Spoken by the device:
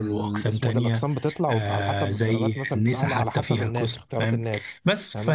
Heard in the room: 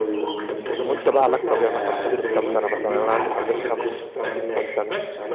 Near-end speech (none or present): present